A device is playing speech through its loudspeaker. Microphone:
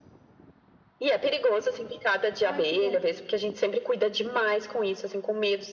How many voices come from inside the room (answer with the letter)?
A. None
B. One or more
B